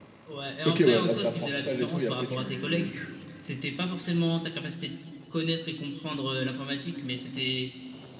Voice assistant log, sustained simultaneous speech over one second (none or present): present